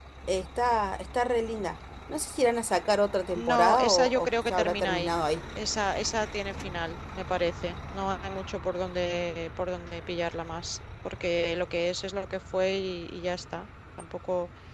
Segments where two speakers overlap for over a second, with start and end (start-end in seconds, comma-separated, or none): 3.3-5.1